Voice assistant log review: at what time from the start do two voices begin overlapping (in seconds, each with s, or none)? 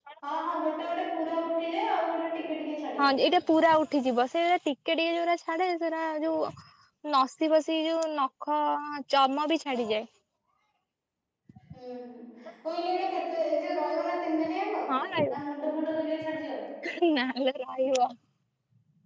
none